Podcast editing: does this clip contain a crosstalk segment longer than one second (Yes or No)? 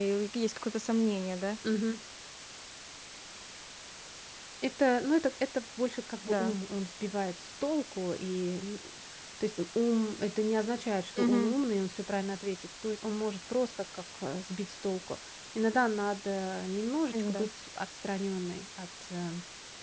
No